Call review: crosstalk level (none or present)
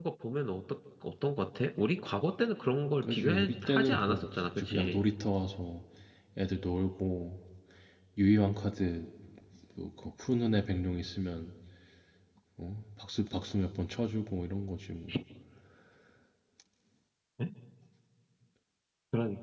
present